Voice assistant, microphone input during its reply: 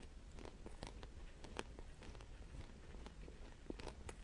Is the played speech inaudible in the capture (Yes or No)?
Yes